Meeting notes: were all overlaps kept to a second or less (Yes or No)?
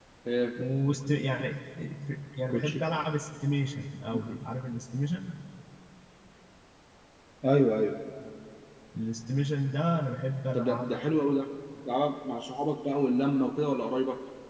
Yes